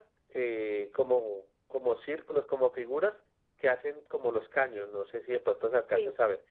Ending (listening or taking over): listening